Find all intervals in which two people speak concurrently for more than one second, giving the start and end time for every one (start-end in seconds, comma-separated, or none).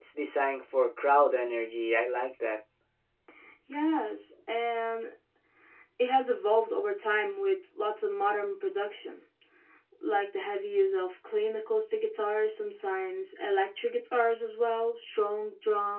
none